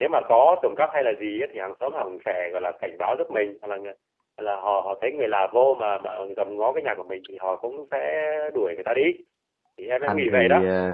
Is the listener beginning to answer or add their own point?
Yes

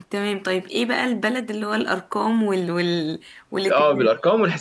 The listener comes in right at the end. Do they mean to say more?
Yes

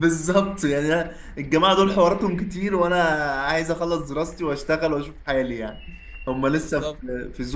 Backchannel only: Yes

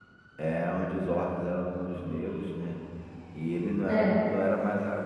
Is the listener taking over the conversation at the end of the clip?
No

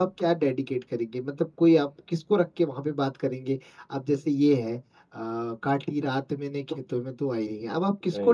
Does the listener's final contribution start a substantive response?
No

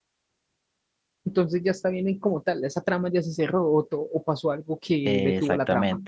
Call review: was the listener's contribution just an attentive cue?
No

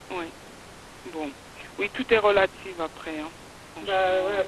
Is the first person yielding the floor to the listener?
Yes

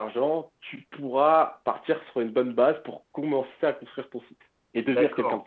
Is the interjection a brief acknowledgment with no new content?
No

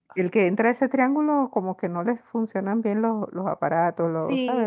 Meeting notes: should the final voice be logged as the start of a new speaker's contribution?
No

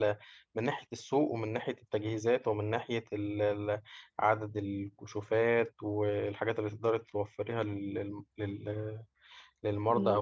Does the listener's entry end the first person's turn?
No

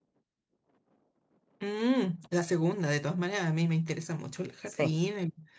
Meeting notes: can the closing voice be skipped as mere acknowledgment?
Yes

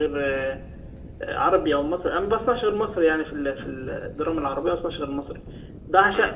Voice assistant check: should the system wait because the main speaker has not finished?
Yes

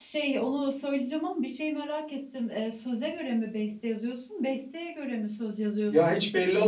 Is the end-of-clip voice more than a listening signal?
Yes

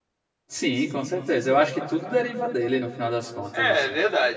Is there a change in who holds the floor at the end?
Yes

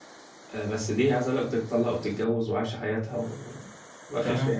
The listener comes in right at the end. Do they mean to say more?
No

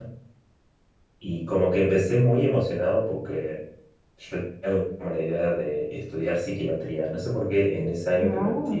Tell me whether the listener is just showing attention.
Yes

